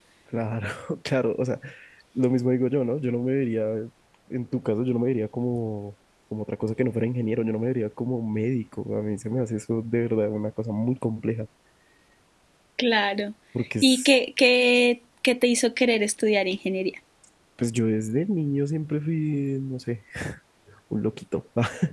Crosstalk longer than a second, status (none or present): none